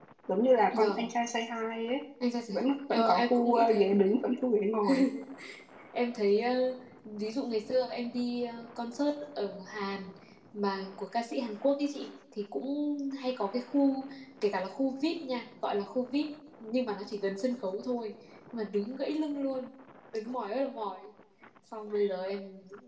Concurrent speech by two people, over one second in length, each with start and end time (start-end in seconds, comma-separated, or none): 2.5-3.9